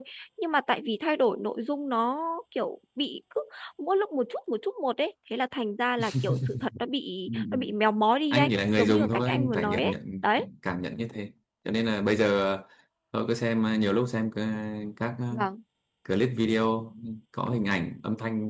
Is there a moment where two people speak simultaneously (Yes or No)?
Yes